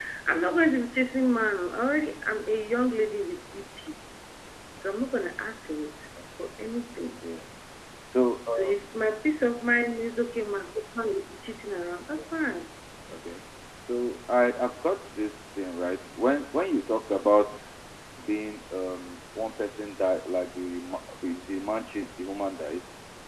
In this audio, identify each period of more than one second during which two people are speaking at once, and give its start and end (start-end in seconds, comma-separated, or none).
none